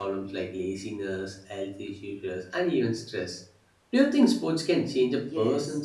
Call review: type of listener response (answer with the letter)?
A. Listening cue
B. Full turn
B